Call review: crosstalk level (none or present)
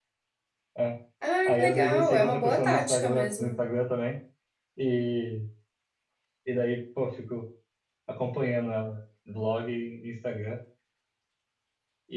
present